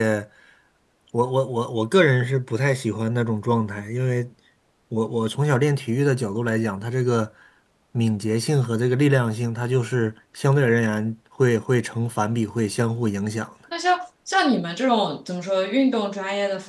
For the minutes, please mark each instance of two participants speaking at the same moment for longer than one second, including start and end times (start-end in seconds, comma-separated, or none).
none